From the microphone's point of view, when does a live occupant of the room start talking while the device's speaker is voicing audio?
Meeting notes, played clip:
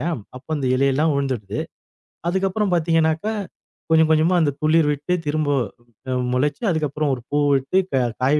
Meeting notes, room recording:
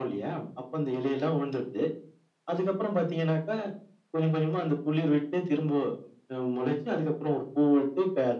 none

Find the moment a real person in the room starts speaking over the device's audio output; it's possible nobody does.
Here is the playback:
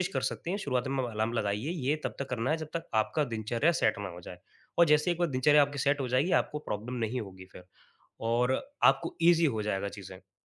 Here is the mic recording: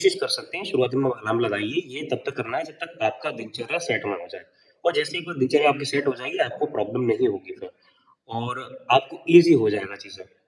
none

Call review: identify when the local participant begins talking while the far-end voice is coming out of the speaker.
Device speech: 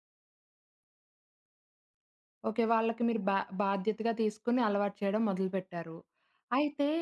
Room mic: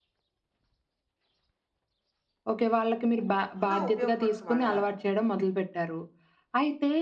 3 s

